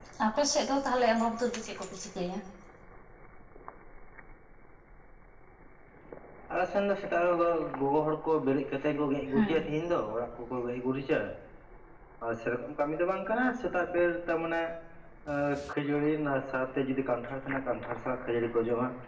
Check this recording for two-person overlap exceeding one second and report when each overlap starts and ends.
none

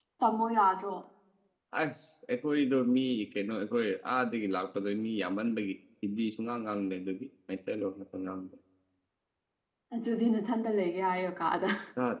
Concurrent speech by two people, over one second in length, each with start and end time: none

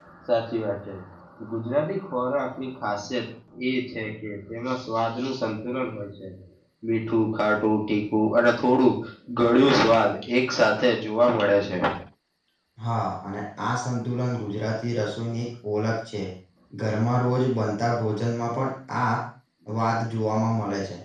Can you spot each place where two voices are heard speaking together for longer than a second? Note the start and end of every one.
none

